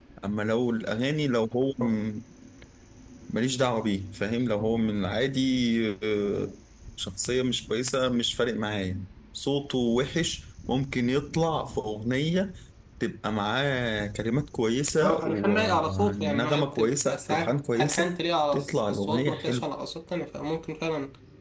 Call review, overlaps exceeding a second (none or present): present